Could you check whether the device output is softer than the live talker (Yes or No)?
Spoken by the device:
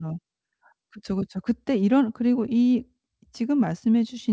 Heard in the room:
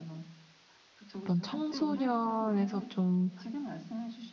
Yes